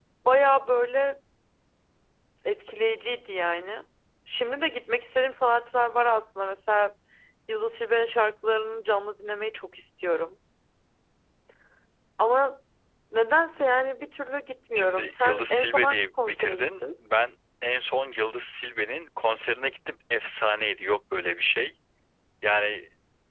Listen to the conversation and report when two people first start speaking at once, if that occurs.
14.8 s

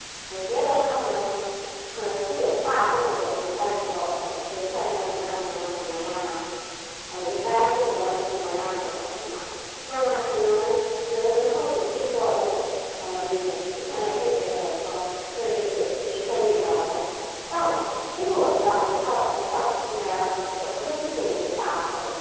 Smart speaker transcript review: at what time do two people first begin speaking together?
none

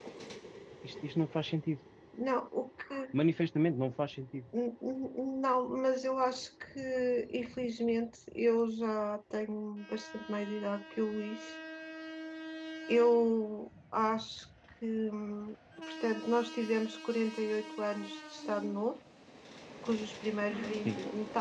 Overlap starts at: none

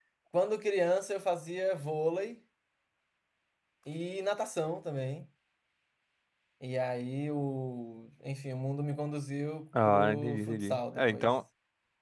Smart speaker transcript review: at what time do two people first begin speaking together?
9.7 s

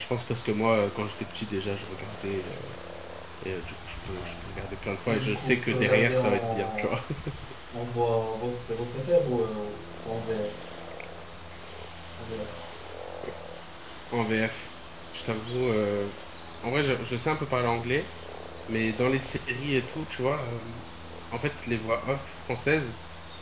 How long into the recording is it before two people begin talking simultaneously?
5.1 s

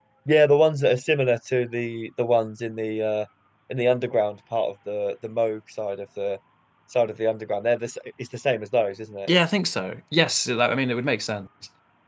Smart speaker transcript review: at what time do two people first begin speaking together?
none

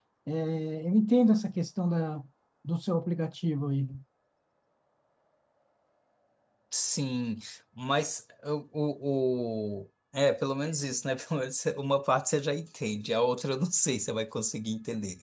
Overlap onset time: none

